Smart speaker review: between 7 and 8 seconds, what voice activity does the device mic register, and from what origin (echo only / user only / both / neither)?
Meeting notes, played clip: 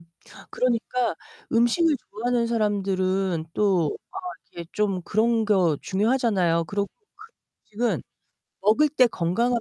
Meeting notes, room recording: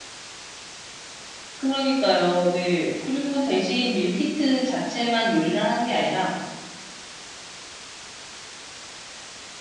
neither